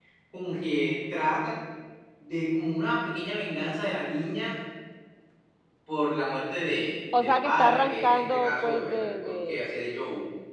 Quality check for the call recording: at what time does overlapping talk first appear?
7.1 s

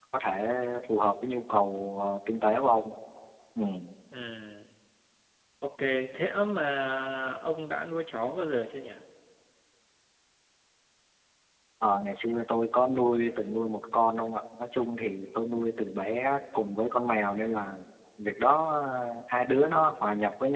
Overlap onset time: none

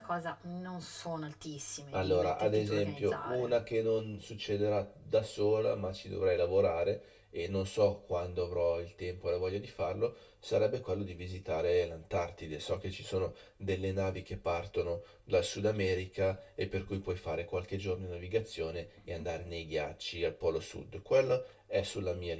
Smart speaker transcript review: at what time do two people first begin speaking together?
1.9 s

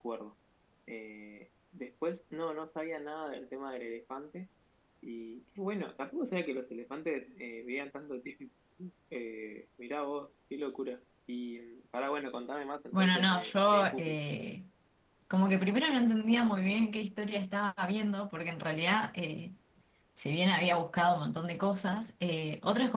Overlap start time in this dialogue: 12.9 s

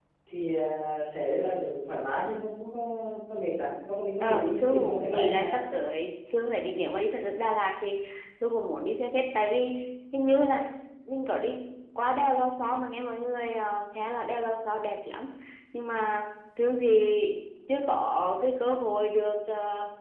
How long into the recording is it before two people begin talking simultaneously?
4.2 s

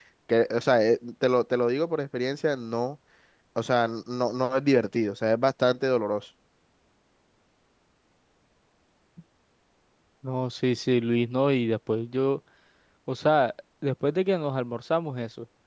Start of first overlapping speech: none

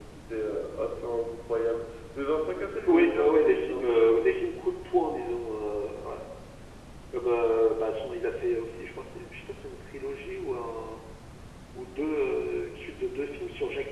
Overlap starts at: 2.9 s

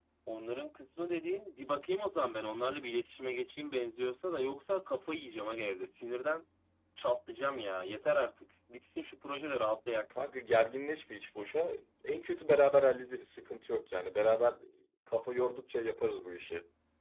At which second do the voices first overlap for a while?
none

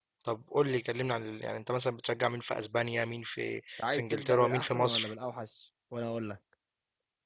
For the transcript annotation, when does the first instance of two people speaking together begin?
3.8 s

